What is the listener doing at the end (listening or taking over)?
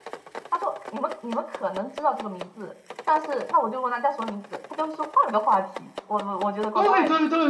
taking over